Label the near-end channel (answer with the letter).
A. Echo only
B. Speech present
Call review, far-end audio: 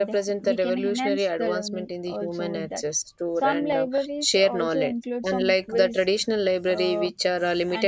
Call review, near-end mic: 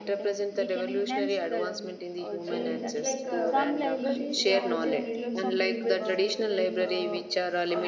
B